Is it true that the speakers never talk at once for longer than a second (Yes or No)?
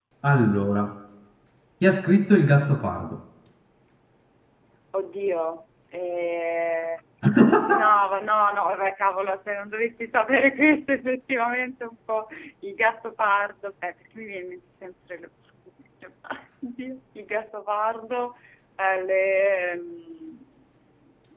Yes